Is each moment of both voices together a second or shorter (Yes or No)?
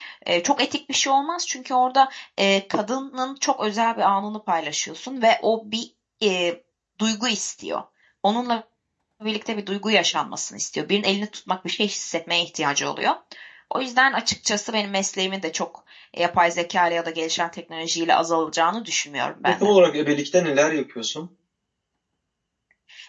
Yes